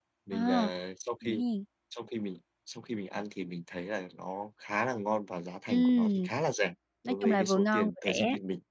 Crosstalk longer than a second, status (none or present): present